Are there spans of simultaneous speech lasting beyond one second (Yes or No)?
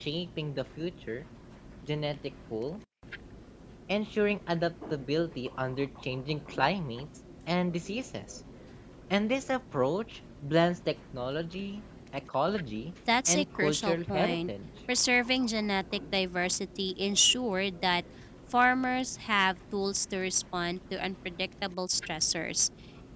Yes